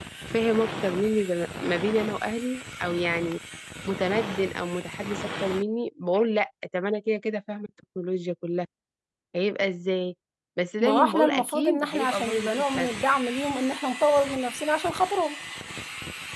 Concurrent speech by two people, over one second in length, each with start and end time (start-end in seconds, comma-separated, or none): 10.8-12.9